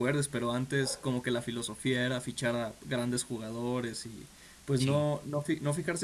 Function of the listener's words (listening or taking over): listening